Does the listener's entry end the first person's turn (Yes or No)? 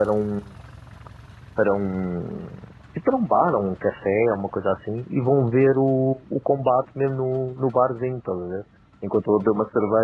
No